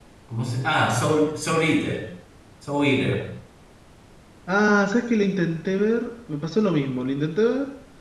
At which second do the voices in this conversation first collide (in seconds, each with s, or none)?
none